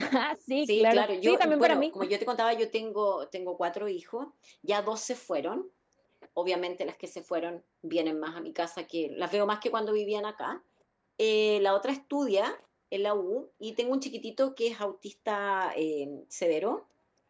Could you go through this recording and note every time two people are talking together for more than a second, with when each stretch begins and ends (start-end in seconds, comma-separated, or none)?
0.7-1.9